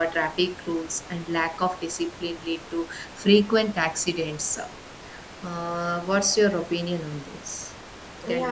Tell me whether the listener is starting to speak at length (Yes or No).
Yes